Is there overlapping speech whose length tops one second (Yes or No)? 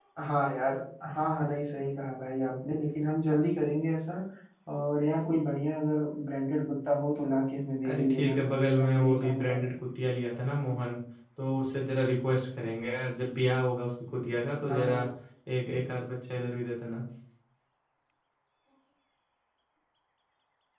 Yes